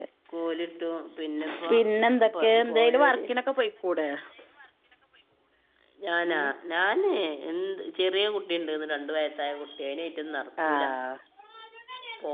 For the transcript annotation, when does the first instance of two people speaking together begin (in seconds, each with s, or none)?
1.7 s